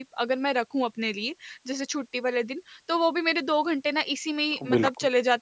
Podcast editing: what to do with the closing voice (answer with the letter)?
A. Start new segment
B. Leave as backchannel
B